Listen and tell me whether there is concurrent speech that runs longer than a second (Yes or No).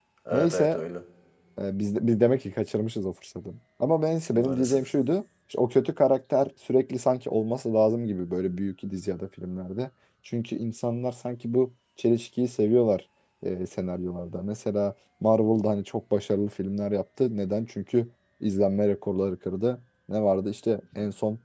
No